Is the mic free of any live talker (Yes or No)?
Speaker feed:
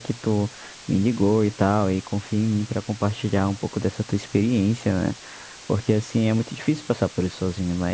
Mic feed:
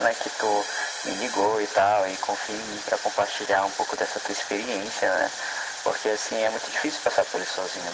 Yes